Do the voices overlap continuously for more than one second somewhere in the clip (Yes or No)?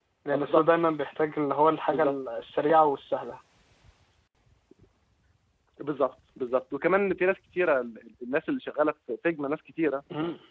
No